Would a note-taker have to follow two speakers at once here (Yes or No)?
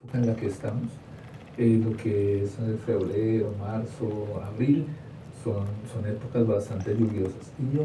No